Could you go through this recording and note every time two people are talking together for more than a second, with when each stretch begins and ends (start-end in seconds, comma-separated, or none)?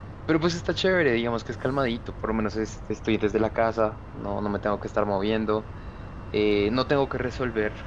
none